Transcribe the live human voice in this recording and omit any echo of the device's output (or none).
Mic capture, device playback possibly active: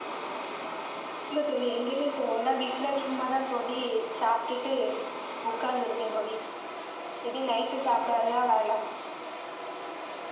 none